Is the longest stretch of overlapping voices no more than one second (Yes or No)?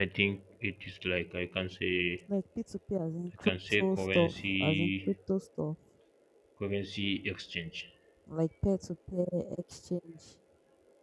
No